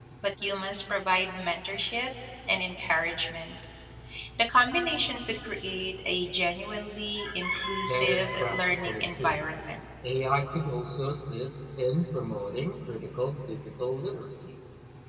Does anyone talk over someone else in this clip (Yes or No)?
Yes